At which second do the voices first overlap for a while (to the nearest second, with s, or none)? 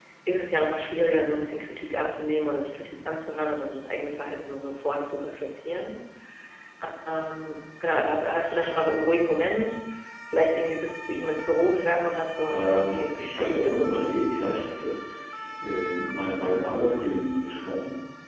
12 s